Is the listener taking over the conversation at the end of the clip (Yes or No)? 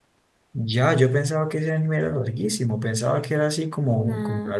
No